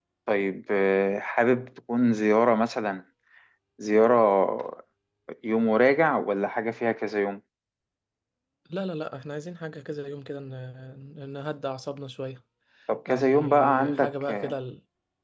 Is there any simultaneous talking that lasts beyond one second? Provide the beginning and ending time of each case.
13.1-14.5

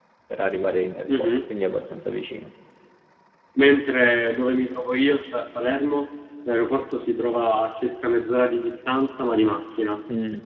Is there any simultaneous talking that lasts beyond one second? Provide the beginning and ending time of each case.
none

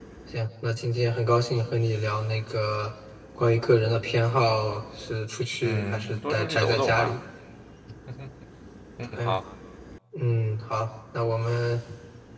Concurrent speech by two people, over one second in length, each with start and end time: 5.6-7.2

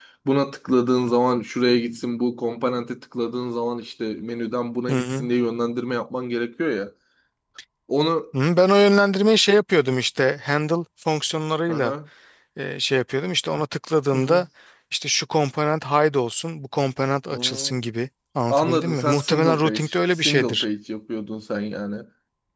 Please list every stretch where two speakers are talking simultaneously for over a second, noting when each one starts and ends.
18.5-20.6

